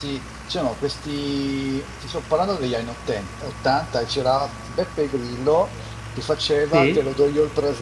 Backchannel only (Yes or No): Yes